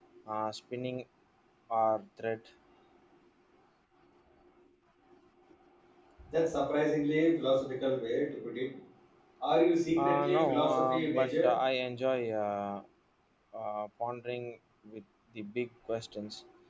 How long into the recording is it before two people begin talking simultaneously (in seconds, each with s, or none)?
10.0 s